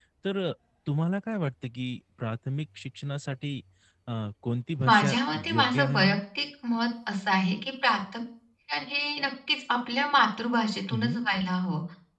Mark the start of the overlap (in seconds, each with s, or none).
4.9 s